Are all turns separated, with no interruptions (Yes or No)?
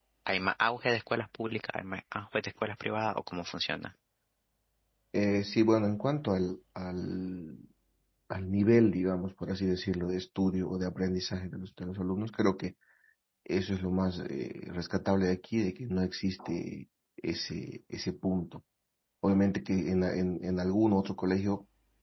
Yes